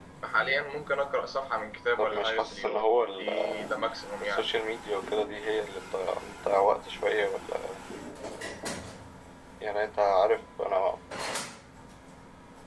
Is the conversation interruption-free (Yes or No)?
No